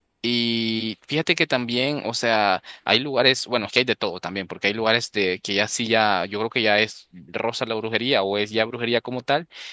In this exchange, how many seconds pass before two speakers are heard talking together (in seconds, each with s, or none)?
none